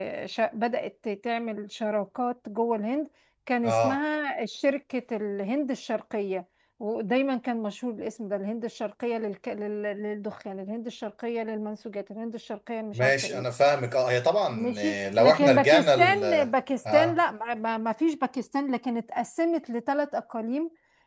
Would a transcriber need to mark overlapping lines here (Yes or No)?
Yes